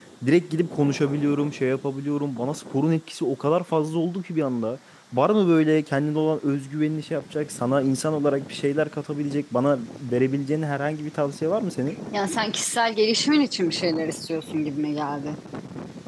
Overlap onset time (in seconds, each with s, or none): none